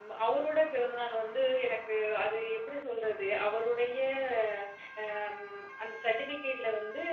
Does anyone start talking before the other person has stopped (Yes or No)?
No